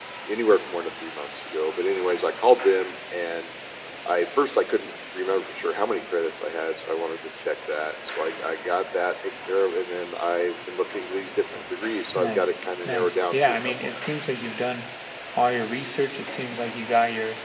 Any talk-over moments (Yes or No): Yes